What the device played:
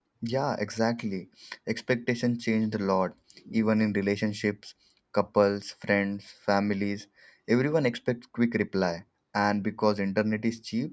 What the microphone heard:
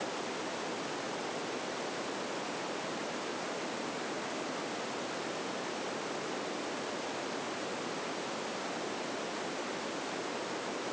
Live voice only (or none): none